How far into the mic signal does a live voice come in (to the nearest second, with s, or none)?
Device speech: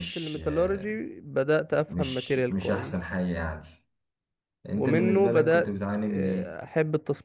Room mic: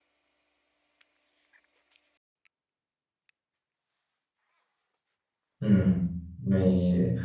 6 s